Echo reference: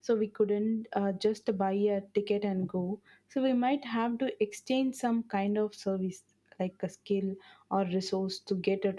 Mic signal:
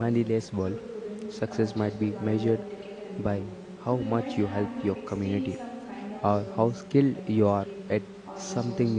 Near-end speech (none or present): present